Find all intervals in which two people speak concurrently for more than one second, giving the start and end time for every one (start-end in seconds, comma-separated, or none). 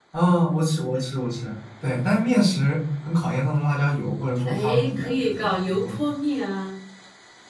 4.5-6.0